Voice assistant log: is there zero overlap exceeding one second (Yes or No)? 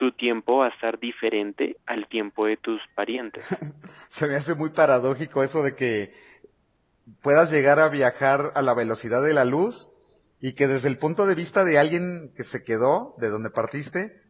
Yes